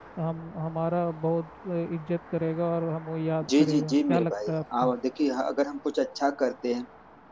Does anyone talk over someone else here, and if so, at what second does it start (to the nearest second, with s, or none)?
3 s